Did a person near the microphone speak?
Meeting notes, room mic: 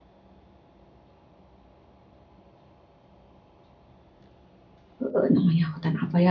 Yes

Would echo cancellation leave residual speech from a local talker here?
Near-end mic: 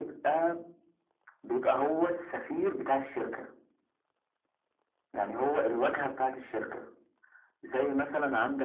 No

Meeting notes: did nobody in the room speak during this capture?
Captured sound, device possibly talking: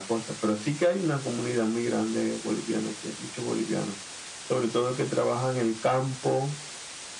Yes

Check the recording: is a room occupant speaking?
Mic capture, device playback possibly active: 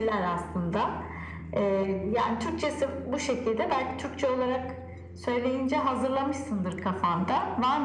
No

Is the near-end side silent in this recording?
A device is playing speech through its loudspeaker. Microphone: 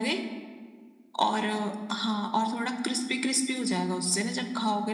Yes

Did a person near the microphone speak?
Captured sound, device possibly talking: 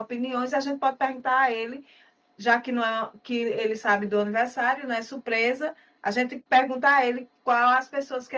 Yes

